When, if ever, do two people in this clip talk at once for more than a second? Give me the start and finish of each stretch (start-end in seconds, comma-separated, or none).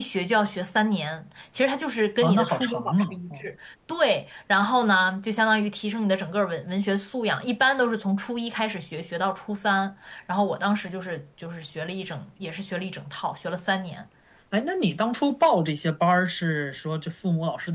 2.2-3.5